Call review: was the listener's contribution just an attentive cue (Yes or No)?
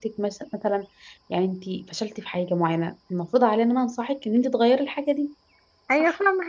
No